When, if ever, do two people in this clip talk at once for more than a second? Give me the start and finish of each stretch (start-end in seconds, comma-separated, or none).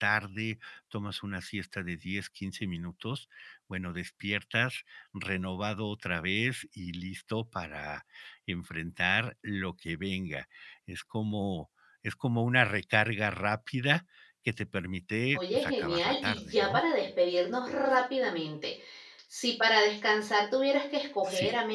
15.4-16.8